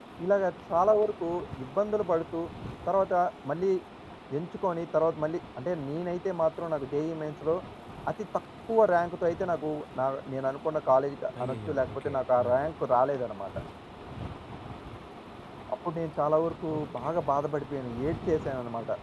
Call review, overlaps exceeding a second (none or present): present